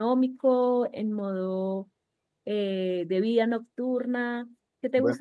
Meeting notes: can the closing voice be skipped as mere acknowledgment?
No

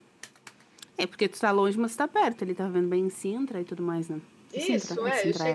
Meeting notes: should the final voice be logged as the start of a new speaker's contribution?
Yes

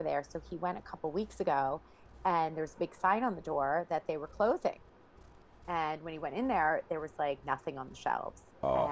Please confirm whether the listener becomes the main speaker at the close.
No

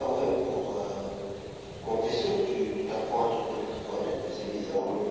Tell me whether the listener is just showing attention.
Yes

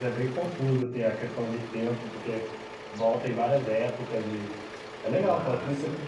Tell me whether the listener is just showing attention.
No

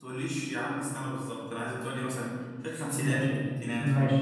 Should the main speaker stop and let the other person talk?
Yes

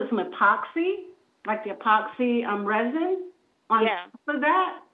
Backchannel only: Yes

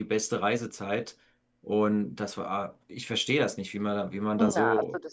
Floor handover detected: Yes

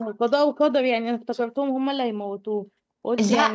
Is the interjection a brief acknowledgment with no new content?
Yes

